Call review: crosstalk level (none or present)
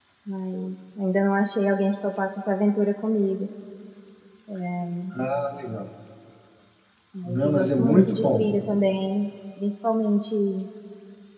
present